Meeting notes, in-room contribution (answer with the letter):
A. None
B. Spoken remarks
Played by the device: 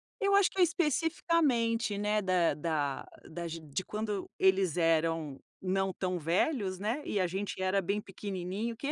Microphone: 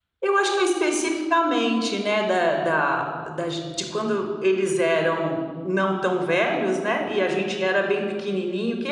A